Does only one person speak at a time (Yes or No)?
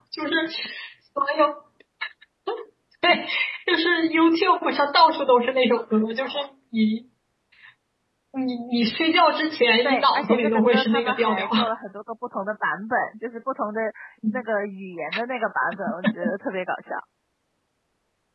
No